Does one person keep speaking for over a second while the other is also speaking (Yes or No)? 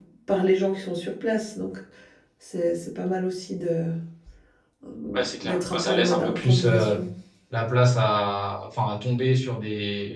Yes